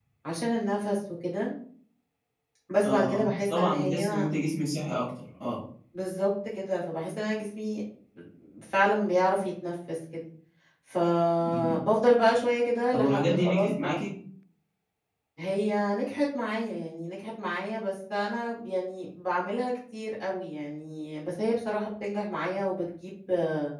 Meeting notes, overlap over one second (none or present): present